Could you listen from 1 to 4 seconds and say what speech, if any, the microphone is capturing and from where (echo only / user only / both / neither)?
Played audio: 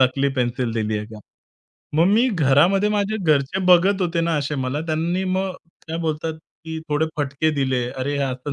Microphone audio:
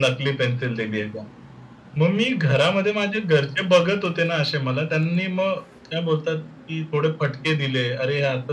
echo only